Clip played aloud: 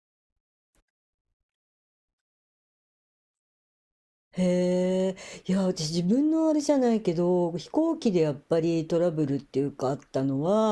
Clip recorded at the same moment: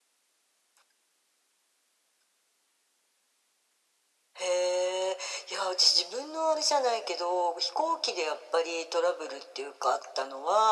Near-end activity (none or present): none